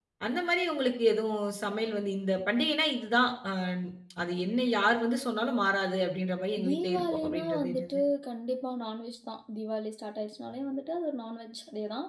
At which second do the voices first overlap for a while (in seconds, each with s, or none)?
6.6 s